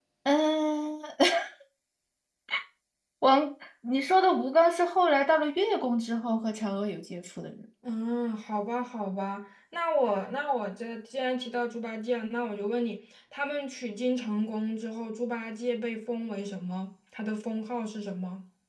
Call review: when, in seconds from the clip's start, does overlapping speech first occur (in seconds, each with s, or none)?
none